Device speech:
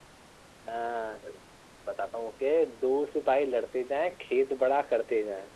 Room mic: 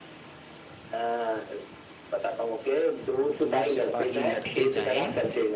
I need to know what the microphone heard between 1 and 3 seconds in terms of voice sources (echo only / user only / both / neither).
echo only